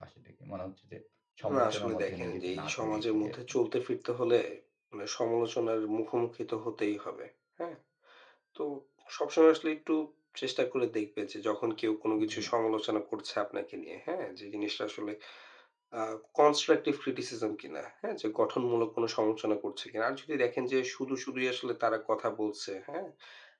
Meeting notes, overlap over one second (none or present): present